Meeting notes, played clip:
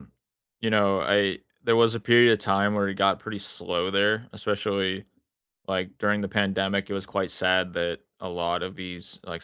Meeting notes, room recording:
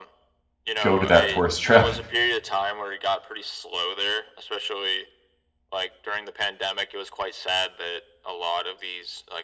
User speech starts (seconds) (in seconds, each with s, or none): 0.8 s